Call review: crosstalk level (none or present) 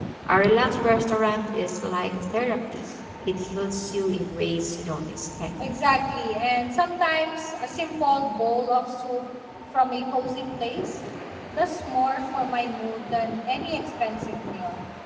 none